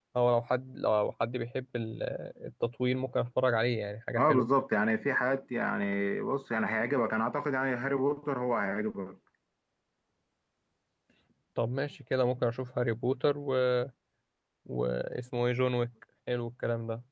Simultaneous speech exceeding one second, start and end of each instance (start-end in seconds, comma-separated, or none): none